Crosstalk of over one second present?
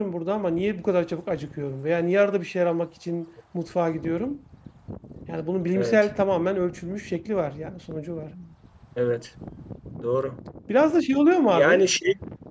No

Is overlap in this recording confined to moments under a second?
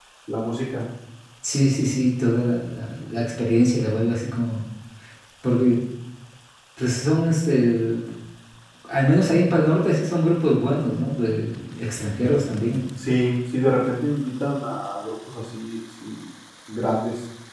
Yes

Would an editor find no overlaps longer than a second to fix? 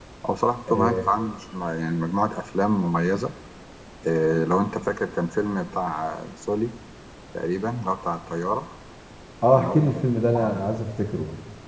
Yes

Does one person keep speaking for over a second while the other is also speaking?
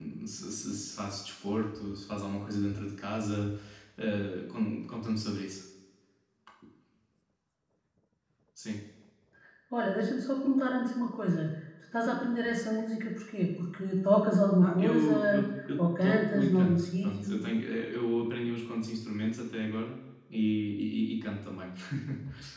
Yes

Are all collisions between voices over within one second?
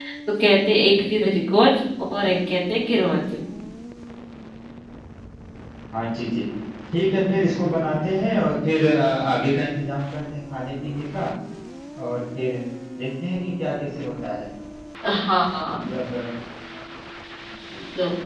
Yes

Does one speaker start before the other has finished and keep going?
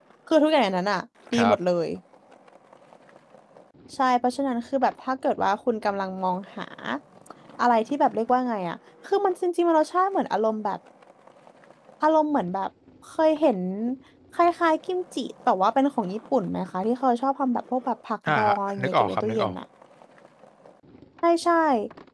Yes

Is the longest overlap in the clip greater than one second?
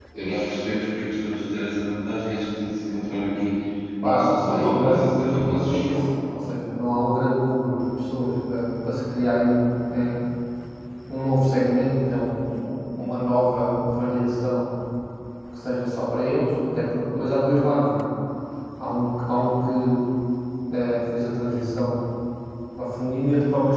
Yes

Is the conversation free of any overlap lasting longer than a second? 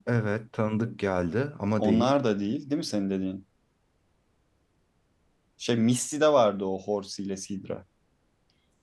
Yes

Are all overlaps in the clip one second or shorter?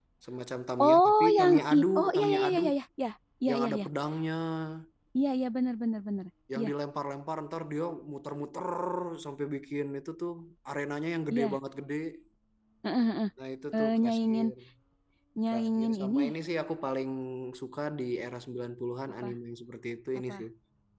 No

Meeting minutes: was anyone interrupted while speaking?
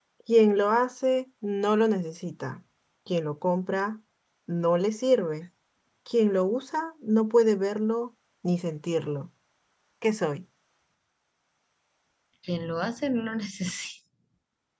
No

